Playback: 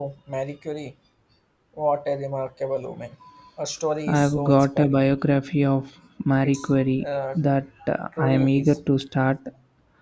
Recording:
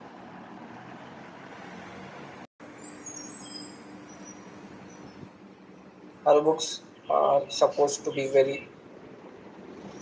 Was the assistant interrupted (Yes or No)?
Yes